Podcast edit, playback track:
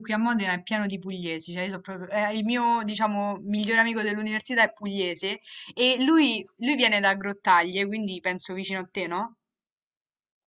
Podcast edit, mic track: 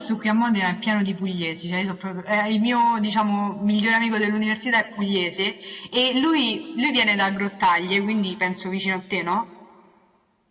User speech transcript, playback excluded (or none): none